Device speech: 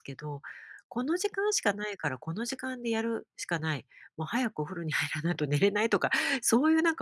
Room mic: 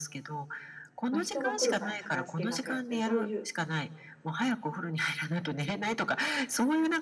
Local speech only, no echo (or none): まあ、人が来るから片付けなきゃって、そういう